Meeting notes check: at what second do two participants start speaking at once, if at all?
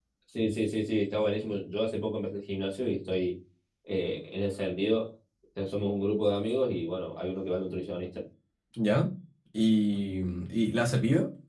none

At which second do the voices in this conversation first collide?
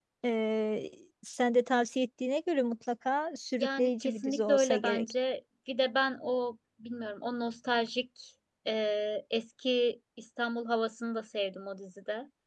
3.6 s

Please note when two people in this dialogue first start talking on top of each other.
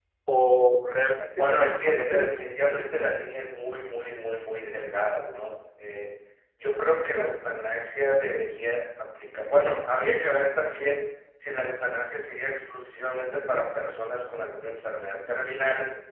1.4 s

